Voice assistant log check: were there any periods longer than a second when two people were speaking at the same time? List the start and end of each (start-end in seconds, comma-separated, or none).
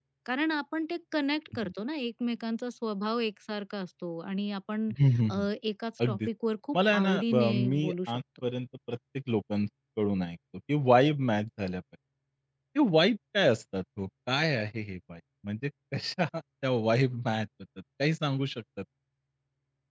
6.8-8.2